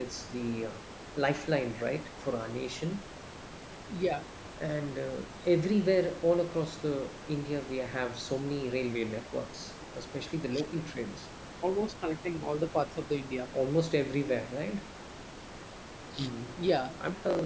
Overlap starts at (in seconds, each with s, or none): none